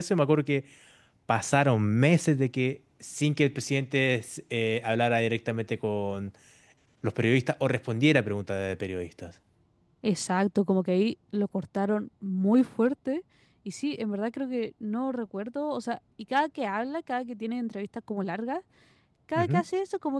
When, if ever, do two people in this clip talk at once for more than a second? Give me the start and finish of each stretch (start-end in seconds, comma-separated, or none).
none